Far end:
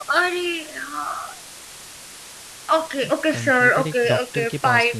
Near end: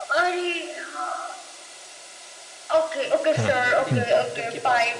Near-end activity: present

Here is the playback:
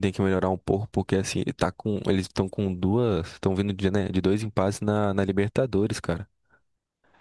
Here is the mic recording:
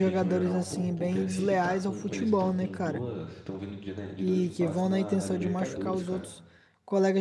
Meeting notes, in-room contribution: present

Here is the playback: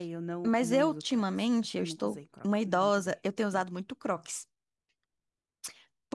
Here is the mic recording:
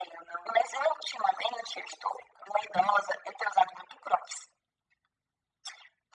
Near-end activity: none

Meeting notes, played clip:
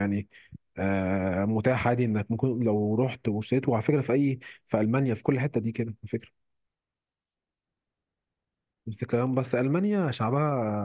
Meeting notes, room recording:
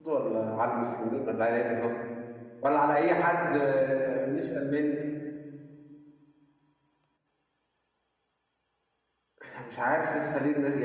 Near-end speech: present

